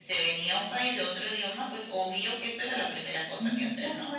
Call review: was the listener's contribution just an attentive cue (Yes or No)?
No